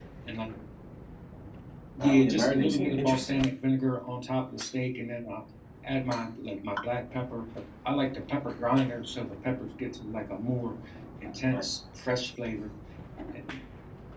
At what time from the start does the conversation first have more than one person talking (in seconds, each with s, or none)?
2.0 s